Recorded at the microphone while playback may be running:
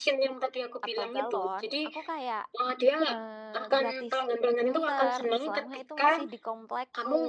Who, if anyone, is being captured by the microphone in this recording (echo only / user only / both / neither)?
both